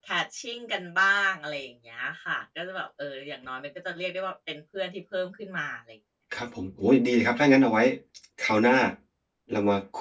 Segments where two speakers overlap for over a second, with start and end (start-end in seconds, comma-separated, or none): none